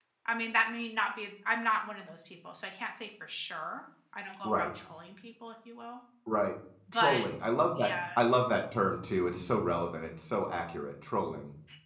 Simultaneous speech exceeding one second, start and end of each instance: none

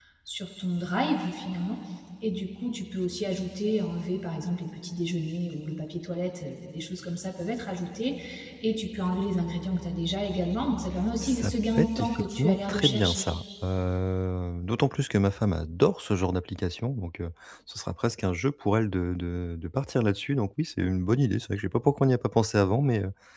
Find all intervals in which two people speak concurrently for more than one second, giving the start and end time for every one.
11.2-13.2

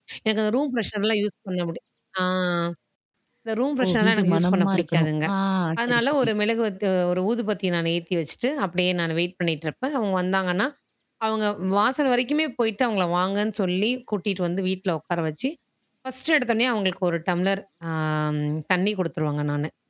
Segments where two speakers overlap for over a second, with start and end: 3.8-5.3

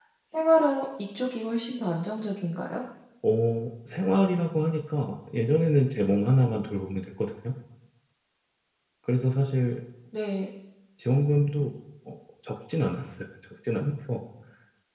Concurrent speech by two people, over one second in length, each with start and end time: none

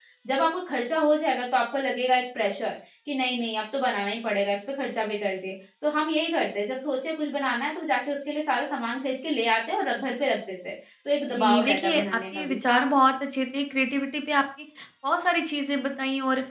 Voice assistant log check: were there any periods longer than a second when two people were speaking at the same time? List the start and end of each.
11.3-12.6

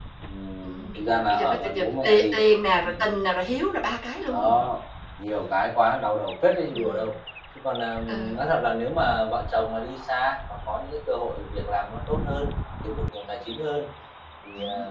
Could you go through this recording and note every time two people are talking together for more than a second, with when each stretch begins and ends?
0.6-2.2

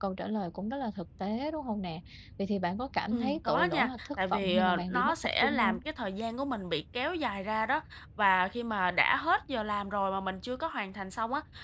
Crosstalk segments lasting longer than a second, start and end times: 3.1-5.8

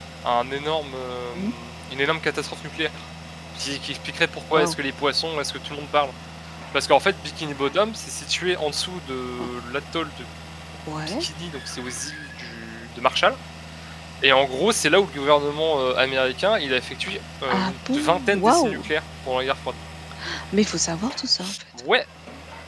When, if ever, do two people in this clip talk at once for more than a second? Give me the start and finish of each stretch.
17.6-18.9

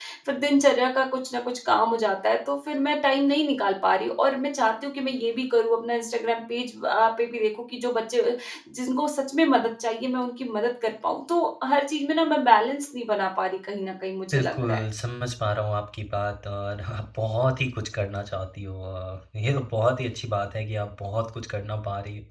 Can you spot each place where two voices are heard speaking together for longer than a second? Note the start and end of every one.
none

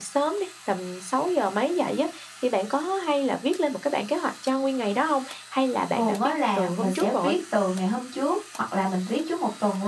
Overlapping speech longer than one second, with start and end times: 6.0-7.4

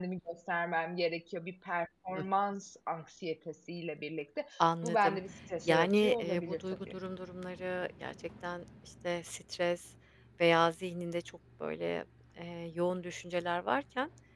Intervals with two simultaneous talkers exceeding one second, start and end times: 5.7-6.9

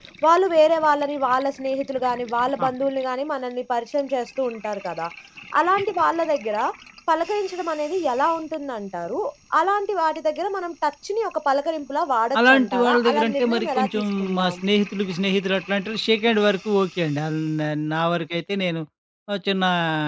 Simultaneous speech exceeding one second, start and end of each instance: 12.5-14.6

